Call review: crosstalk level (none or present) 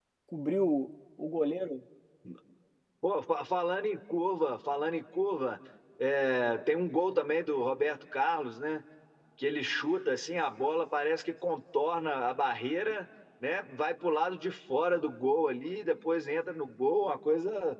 none